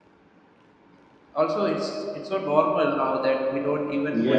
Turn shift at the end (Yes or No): Yes